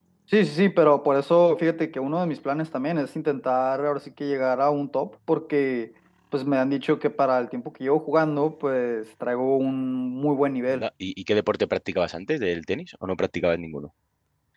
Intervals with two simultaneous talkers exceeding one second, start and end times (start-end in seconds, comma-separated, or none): none